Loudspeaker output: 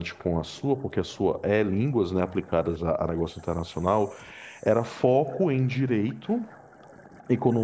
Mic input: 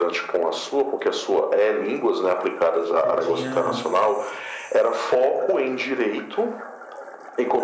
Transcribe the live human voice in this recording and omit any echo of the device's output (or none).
você tinha,